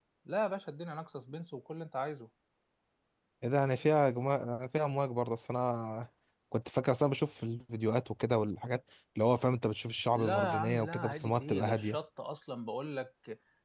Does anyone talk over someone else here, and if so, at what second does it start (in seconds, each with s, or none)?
10.1 s